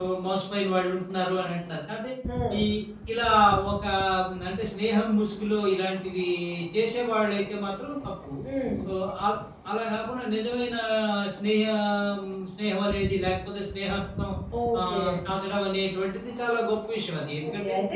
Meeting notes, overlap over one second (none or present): none